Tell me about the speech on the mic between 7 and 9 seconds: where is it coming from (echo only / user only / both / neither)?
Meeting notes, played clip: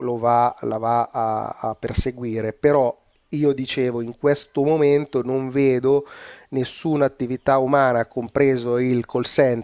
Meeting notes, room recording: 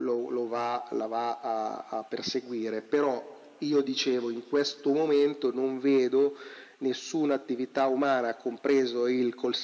echo only